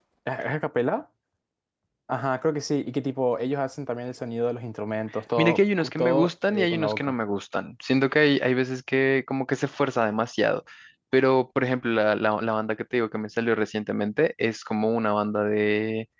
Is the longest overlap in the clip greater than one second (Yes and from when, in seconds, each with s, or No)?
Yes, from 5.4 s